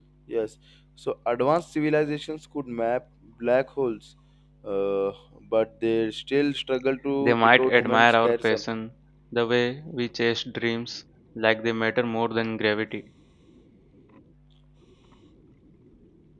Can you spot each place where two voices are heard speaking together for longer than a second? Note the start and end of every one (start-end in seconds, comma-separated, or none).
7.2-8.6